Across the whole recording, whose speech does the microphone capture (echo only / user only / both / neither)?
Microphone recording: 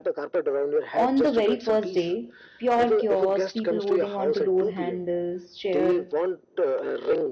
both